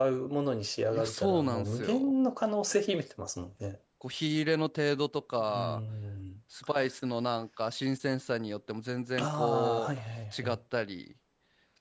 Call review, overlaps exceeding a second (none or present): present